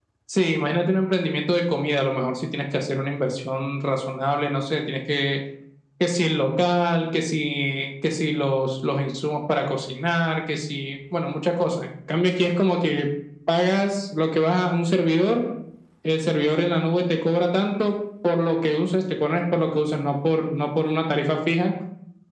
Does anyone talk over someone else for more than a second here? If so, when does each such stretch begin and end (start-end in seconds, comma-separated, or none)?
none